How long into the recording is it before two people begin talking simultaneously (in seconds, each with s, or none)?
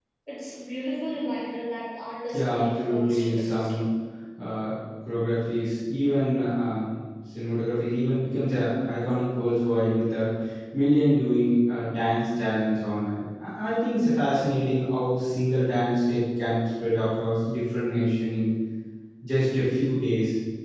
2.3 s